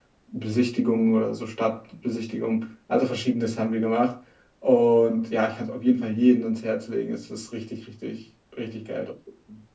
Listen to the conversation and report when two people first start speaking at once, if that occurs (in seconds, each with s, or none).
none